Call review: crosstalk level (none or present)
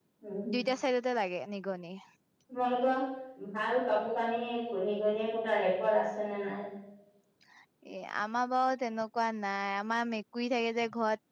none